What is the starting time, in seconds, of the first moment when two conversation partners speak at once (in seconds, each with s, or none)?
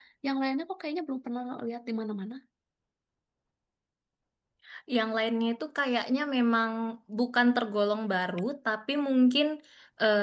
none